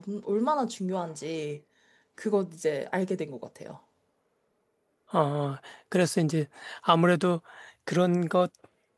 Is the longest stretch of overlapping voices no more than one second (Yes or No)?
Yes